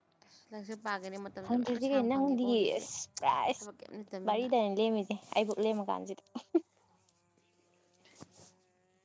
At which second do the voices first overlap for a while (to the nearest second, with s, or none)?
1 s